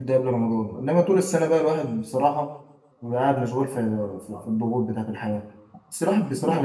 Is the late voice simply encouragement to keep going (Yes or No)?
Yes